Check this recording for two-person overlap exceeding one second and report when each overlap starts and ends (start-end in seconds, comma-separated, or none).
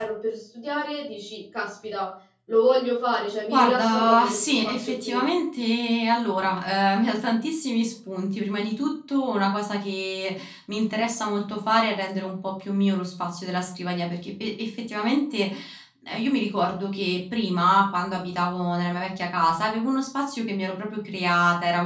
3.5-5.2